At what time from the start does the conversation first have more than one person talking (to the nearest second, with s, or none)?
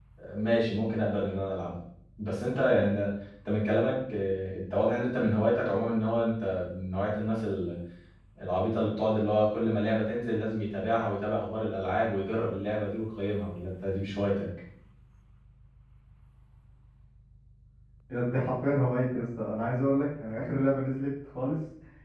none